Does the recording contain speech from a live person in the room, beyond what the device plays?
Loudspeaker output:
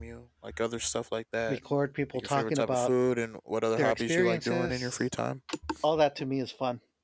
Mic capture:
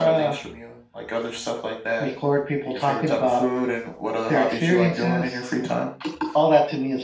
No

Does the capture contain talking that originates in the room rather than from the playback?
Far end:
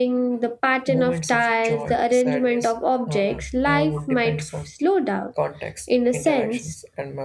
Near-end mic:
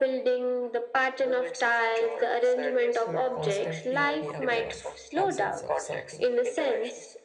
Yes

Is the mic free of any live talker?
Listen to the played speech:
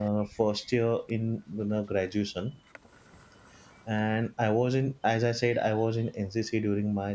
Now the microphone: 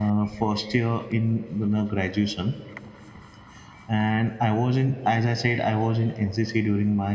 Yes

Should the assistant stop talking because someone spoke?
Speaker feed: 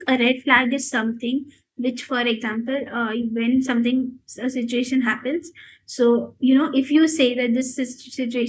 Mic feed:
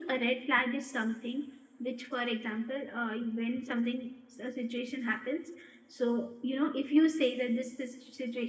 No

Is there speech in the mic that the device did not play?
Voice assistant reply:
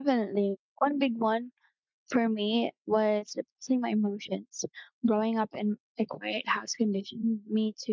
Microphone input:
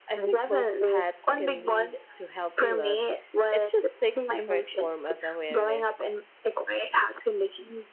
Yes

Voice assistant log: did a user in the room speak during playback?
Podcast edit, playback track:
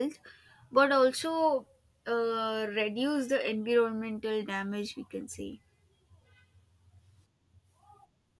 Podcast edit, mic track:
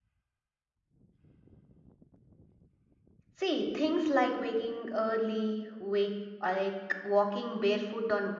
Yes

